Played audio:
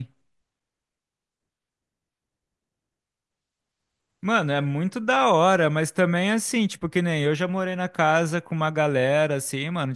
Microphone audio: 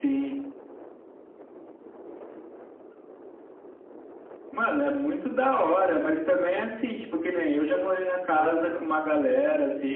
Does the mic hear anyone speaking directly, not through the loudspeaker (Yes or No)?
Yes